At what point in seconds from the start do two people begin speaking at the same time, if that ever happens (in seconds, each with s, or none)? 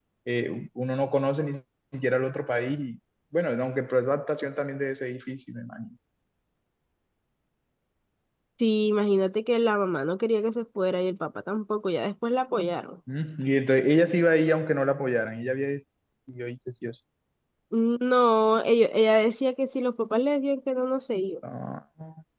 none